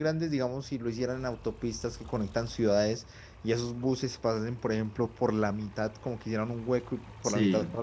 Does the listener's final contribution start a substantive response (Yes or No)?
No